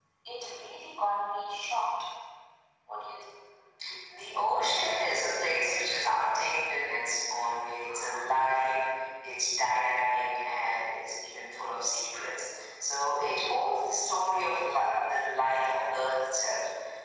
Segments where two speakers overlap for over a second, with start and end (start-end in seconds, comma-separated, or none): none